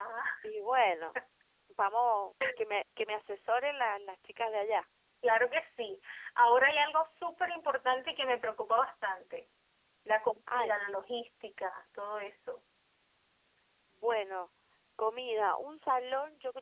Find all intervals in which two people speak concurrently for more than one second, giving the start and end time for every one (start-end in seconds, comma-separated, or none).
none